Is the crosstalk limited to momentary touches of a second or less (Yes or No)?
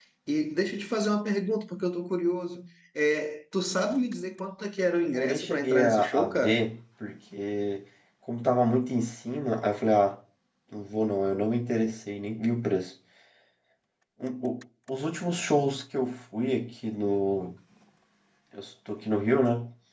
No